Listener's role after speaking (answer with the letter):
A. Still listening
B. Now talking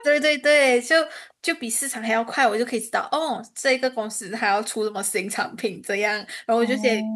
A